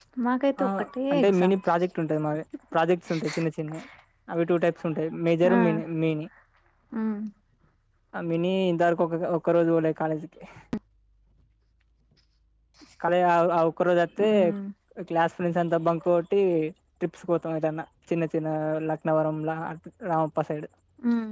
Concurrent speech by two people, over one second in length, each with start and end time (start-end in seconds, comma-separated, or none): none